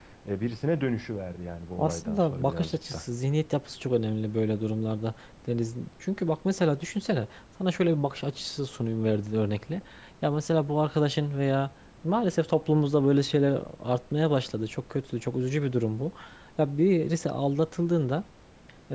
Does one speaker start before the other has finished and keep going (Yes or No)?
Yes